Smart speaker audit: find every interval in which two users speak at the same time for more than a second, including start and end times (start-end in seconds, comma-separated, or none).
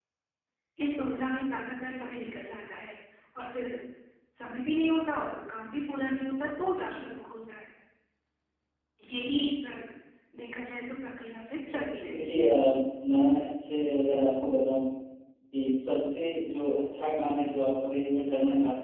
none